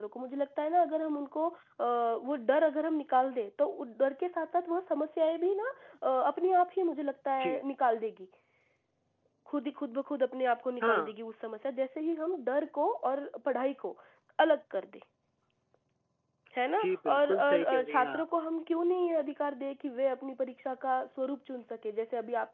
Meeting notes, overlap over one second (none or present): present